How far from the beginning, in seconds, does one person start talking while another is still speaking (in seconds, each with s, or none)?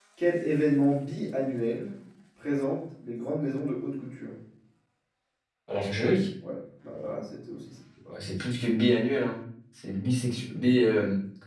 none